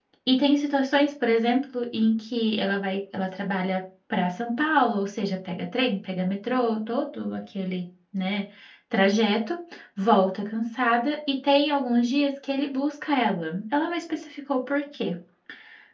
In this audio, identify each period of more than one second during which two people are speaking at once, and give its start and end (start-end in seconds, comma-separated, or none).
none